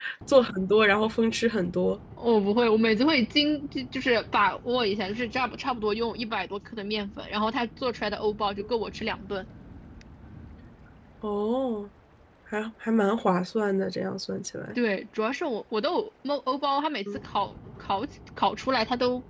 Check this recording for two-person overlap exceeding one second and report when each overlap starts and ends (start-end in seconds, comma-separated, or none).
none